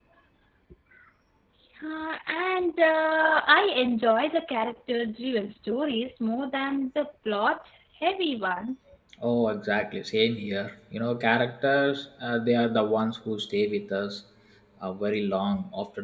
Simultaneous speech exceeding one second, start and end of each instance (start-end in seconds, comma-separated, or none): none